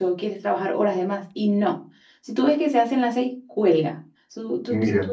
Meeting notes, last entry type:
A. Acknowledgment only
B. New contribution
A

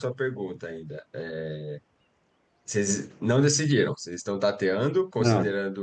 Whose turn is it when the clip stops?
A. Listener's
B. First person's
B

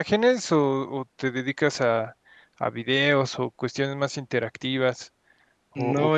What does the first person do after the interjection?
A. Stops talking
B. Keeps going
A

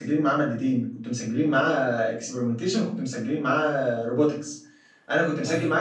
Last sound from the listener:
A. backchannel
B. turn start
A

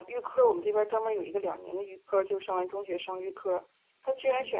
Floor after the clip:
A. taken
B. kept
B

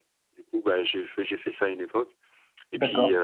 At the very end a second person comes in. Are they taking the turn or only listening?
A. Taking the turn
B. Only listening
B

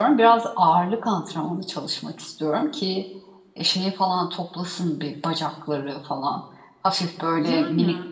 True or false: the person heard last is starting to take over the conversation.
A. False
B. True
A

